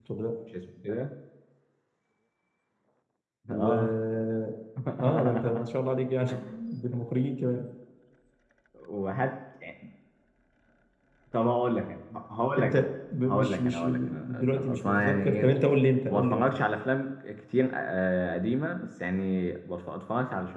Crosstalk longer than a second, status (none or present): present